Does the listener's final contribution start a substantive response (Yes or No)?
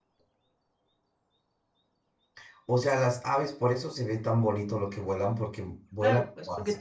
Yes